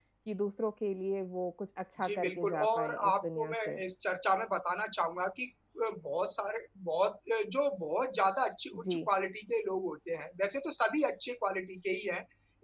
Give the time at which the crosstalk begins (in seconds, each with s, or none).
2.0 s